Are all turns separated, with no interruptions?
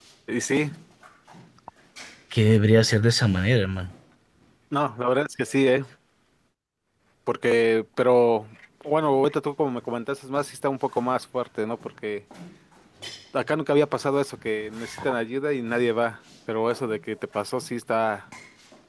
Yes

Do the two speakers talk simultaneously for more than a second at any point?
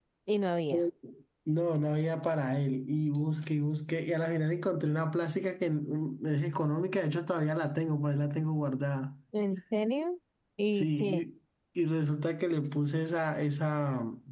No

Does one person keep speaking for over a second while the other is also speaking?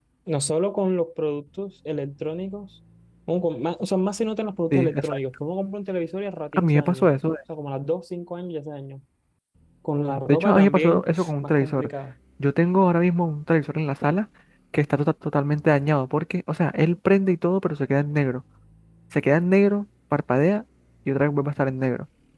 Yes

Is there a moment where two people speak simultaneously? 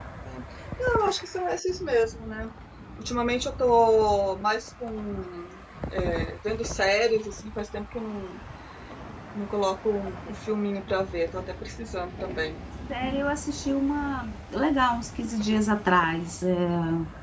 No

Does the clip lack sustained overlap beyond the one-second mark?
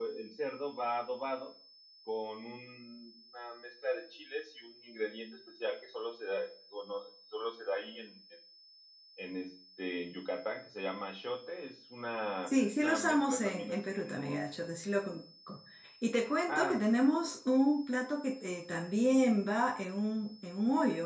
No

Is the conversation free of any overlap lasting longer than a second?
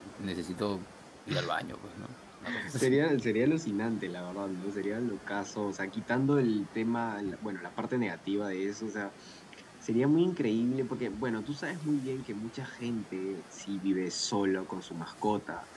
Yes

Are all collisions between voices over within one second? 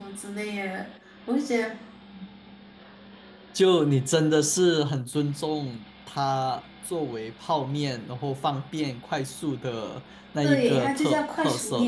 No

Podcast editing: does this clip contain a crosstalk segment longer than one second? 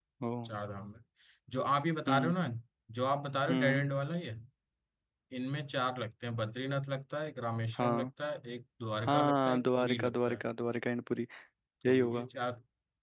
Yes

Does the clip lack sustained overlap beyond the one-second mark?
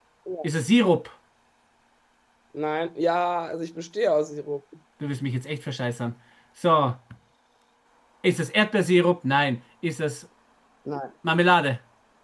Yes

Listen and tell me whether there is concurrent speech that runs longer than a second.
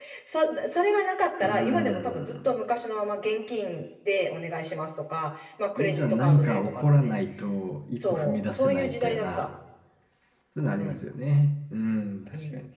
Yes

